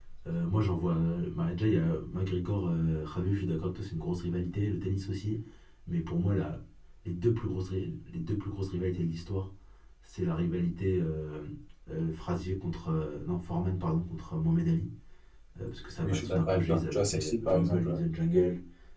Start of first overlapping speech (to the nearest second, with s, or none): 16 s